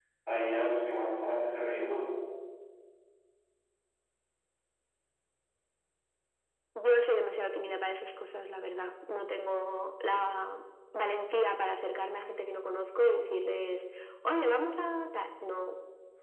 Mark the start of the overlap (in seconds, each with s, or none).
none